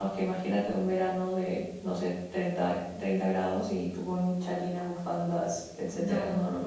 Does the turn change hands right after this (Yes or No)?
Yes